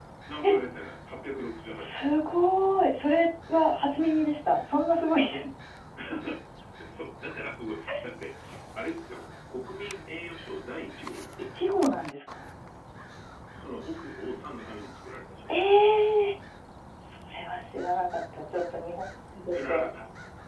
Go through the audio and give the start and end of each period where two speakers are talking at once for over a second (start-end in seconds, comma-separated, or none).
none